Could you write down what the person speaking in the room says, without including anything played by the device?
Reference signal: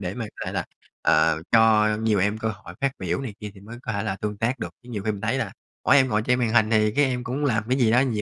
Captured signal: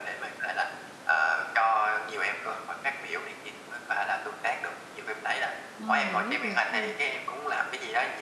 Ờ, giải quyết được ha.

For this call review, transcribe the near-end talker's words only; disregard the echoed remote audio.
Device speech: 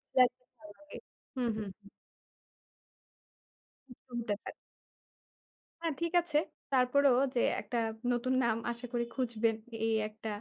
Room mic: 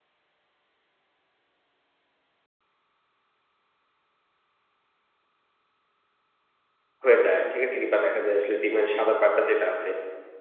হয়ে যায়, ঠিক আছে? কিংবা দেখা যায় আসলে ডিমের সাদা পার্টটা যেটা আছে,

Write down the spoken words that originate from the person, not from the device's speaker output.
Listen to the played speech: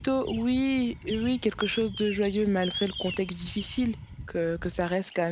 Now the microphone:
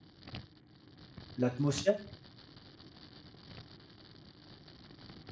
l'atmosphère,

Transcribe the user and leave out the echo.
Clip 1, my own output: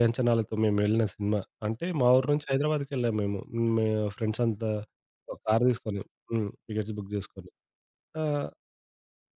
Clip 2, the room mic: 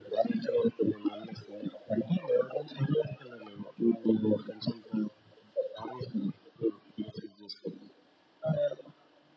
none

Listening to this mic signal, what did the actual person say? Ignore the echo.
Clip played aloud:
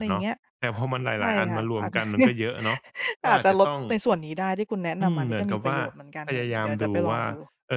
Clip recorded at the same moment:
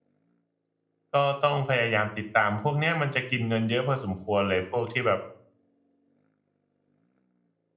ก็ต้องพยายามติดตาม พวกเนี้ยมันจะกินเงินเยอะพอสมควรเลย พวกที่แบบ

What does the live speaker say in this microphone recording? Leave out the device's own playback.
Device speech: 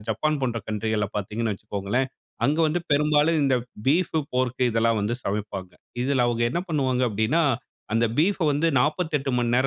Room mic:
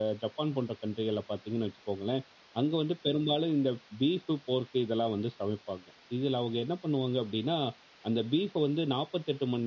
none

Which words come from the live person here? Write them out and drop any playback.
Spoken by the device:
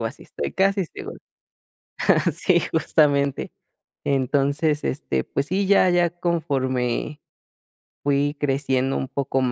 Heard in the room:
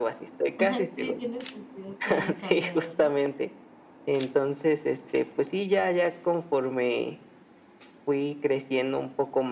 Ajá, sí tiene sentido que haya cambiado, ¿no?

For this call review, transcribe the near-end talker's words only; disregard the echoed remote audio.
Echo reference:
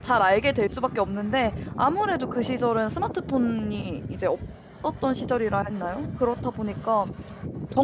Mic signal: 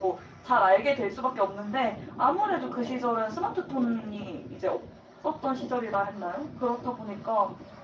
none

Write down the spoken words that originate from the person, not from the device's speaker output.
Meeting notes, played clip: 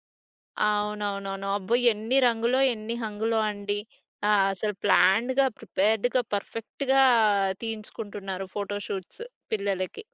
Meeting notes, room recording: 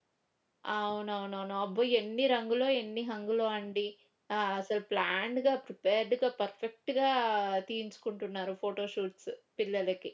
none

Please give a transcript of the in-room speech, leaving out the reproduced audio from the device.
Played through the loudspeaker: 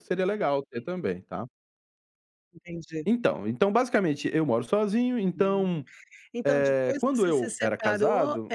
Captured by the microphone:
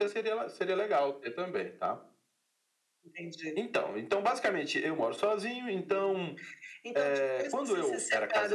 none

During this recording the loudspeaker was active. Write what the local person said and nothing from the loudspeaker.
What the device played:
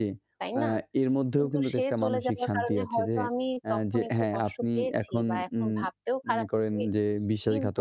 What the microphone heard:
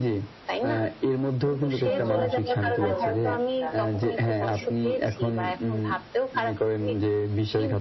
ধন্যবাদ আপনাকে। ভালো লাগলো আসলে আপনার সাথে কথা বলে।

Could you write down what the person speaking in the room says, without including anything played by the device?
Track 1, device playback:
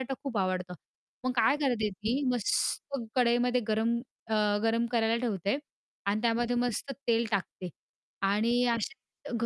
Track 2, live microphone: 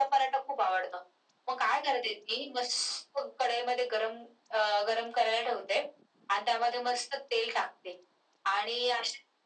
none

